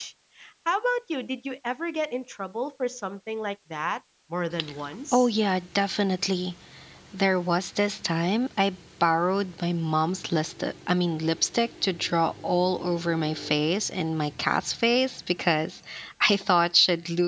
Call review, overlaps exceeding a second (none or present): none